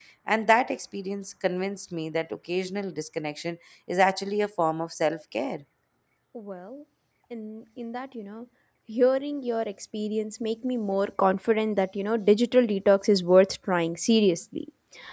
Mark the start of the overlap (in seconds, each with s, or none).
none